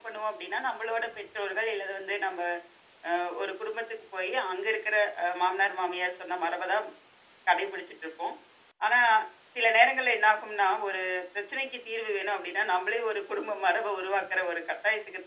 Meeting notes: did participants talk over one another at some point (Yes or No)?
No